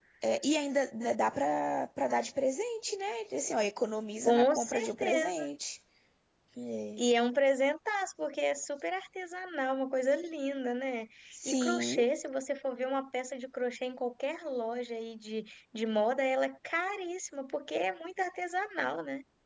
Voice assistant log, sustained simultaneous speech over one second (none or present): present